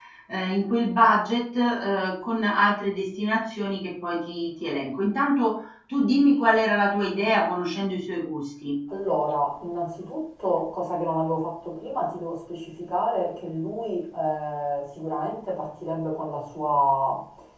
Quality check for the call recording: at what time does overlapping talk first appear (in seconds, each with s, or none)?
none